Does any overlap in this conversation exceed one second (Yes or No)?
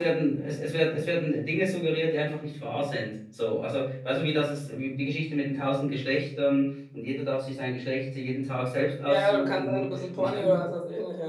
Yes